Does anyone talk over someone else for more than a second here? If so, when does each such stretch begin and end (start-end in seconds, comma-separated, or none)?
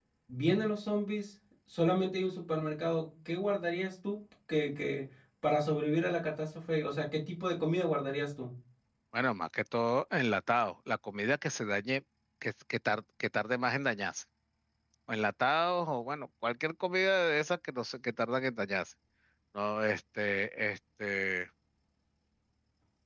none